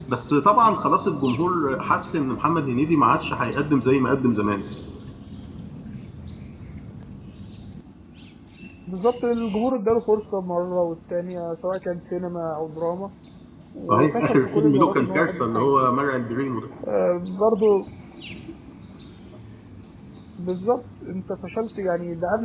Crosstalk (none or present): present